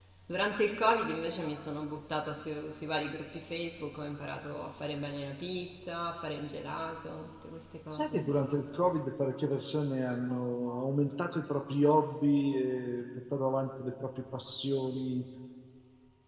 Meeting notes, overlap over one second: none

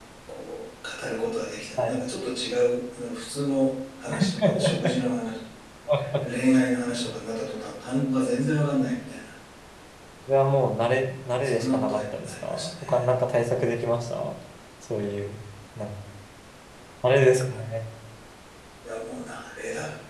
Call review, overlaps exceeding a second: present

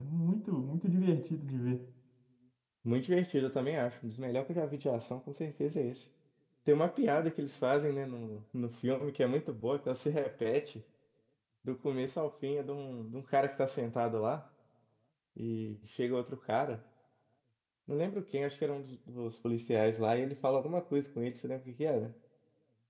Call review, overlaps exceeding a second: none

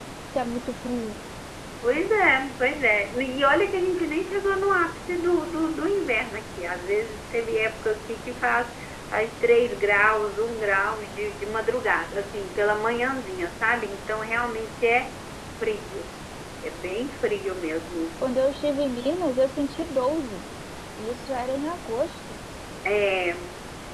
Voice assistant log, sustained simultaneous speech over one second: none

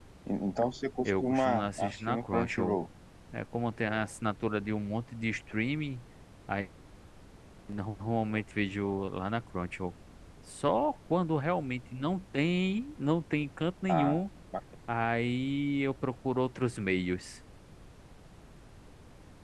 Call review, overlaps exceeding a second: present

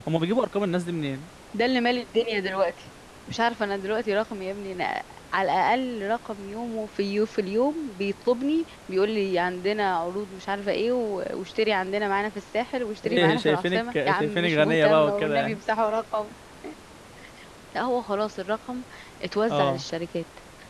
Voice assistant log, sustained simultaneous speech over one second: present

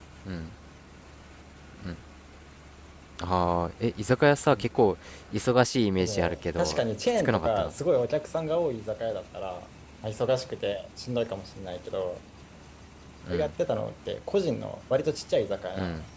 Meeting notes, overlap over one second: present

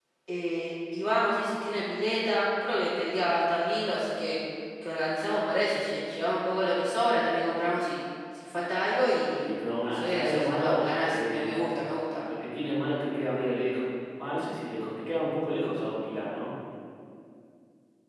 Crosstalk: present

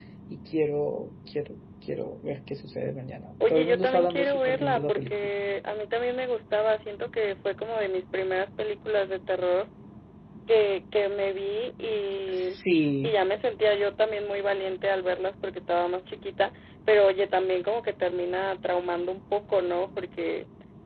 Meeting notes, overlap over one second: present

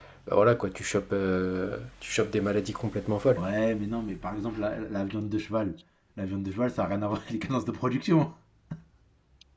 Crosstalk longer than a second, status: none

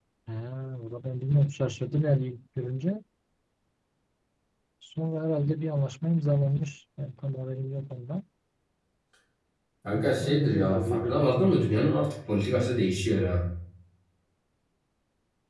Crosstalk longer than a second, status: present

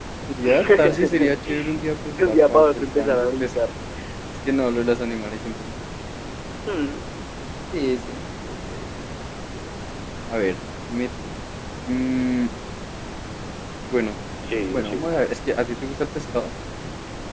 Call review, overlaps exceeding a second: present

